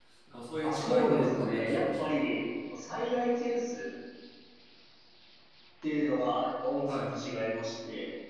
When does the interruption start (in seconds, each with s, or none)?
0.6 s